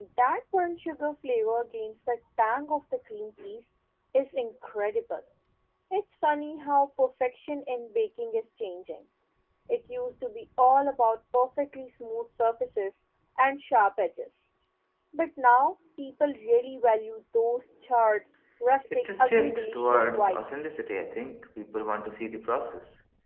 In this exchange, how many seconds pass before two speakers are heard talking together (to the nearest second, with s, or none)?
19 s